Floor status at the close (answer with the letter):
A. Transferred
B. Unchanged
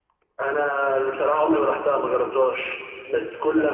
B